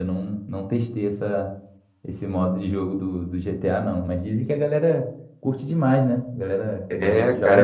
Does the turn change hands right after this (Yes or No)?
Yes